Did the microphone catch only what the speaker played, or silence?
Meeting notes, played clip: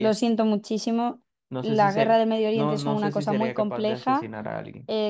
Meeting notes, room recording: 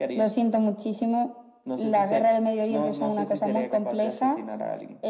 Yes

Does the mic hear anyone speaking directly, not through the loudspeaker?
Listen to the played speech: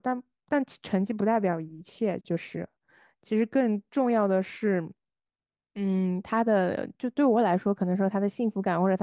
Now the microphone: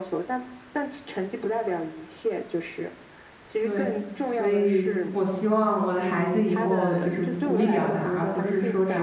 Yes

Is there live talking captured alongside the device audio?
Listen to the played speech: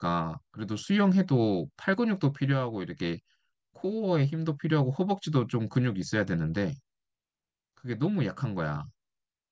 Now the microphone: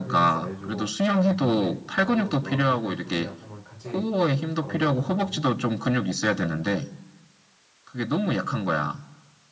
Yes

